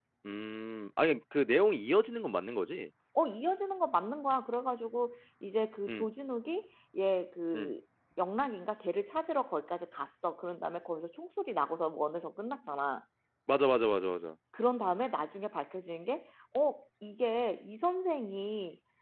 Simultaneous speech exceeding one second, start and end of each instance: none

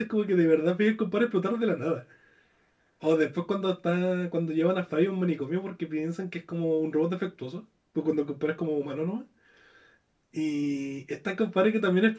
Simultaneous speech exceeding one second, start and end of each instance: none

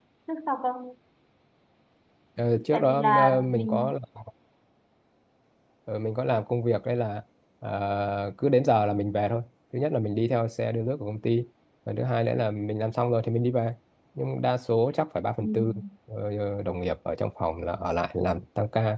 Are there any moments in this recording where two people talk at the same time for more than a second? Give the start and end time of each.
2.7-3.9

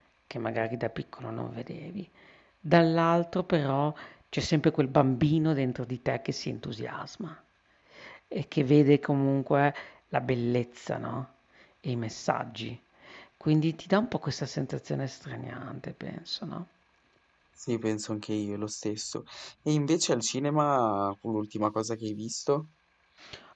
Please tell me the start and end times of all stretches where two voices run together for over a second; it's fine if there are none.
none

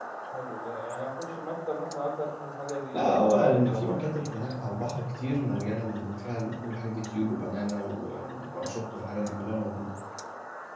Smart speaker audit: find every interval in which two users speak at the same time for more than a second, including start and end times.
2.9-4.8

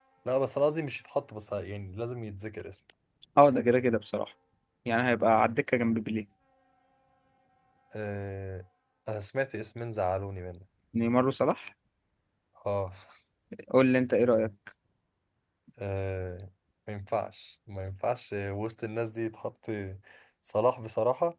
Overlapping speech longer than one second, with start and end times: none

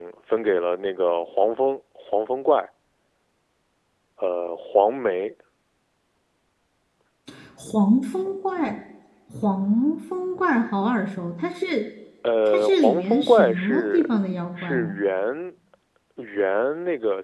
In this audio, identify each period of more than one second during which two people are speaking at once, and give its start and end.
12.5-14.1

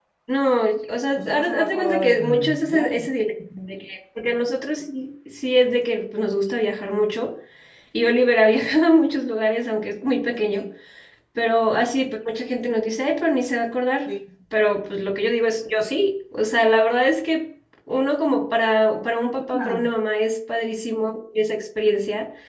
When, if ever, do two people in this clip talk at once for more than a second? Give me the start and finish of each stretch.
1.2-3.1

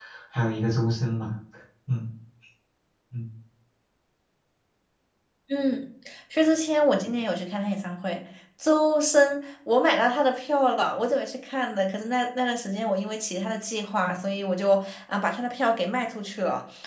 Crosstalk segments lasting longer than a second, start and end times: none

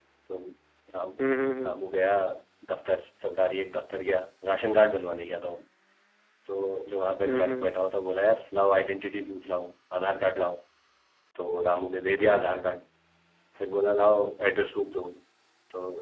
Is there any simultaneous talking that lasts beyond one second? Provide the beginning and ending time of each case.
none

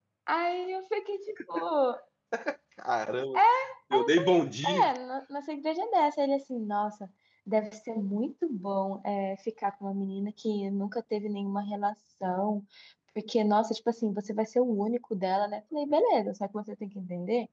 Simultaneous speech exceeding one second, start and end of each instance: none

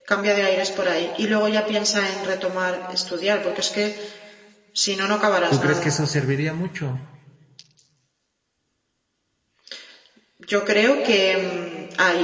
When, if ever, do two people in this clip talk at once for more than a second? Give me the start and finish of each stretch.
none

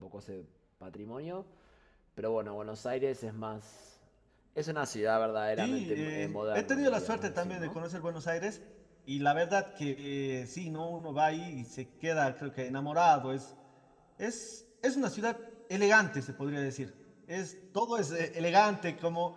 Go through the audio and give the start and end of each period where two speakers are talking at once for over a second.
5.6-7.8

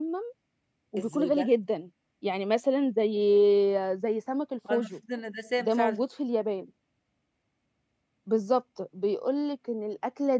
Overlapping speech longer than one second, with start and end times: none

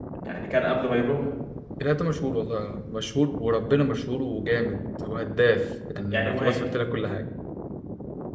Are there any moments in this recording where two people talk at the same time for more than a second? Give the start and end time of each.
none

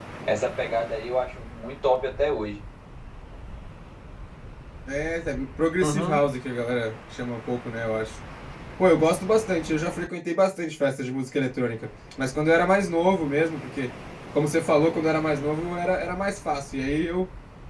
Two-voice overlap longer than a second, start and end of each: none

